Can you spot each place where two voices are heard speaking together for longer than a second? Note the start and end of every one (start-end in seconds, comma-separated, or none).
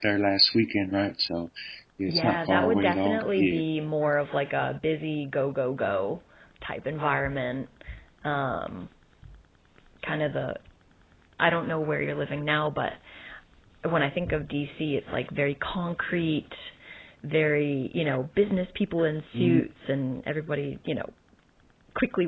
2.1-3.6